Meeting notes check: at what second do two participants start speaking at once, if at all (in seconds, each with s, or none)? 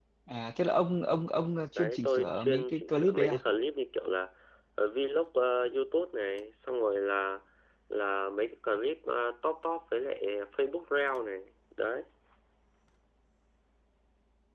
1.8 s